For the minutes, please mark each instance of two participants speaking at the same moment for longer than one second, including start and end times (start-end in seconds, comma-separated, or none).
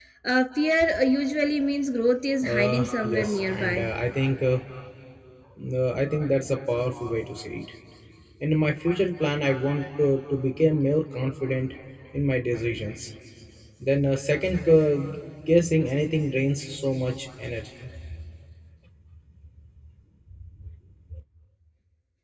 2.4-3.9